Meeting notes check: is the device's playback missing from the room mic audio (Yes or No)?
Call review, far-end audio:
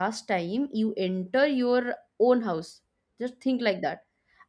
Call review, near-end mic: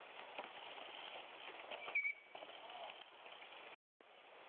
Yes